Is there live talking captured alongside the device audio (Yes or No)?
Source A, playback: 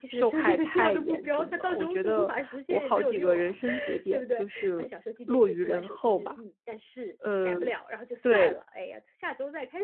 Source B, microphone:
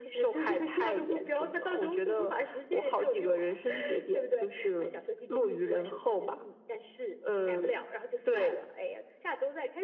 No